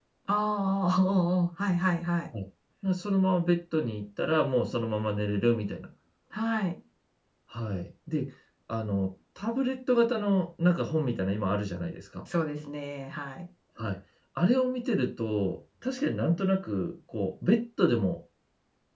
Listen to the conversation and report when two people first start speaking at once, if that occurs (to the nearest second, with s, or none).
none